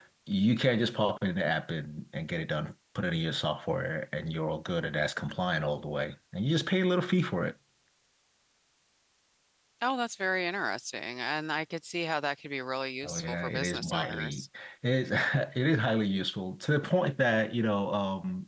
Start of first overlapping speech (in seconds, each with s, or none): 13.0 s